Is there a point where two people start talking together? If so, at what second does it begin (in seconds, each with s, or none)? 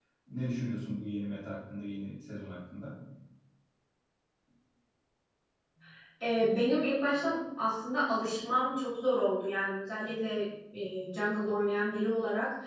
none